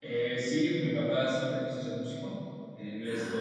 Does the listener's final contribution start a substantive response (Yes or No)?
No